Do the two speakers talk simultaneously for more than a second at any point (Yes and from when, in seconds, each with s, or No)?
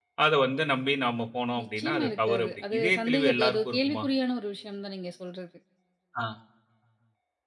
Yes, from 1.6 s